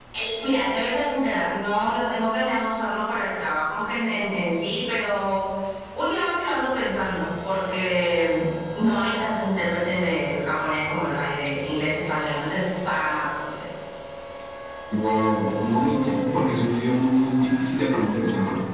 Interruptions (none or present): none